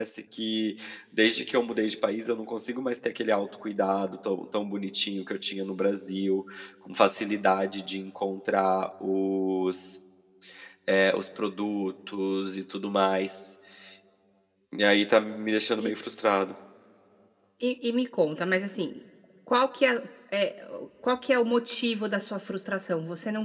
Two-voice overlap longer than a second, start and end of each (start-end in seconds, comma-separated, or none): none